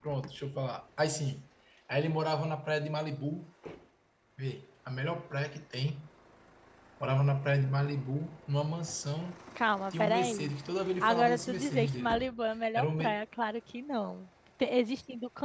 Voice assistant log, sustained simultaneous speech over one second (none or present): present